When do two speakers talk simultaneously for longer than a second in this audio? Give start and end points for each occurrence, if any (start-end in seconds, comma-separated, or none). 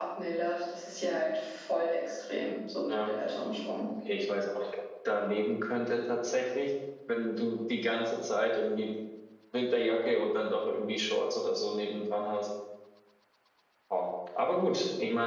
none